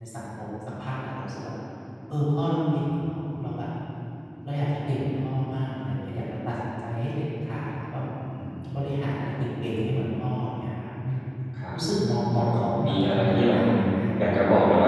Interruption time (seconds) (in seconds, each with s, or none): 12.3 s